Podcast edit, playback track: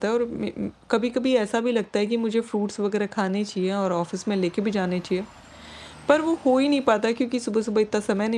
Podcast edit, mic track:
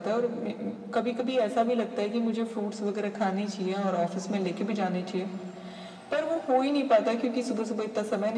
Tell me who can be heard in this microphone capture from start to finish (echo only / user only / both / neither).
echo only